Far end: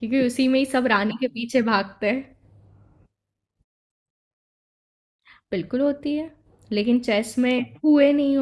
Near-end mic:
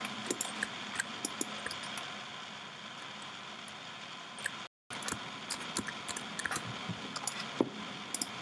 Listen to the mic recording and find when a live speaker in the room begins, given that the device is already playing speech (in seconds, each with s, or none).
none